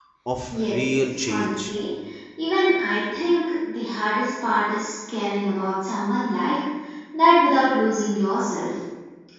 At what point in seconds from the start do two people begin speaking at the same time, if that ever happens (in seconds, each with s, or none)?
0.5 s